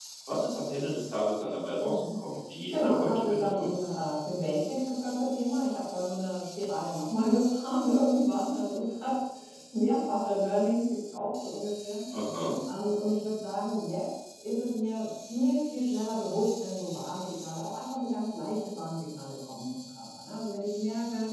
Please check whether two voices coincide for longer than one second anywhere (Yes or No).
Yes